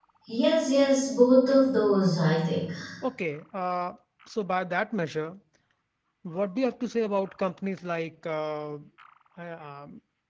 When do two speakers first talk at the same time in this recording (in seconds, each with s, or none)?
none